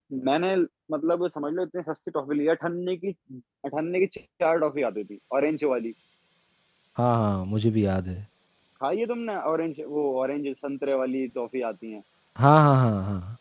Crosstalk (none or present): none